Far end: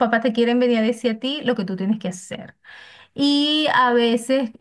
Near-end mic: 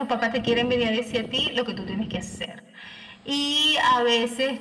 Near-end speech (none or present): none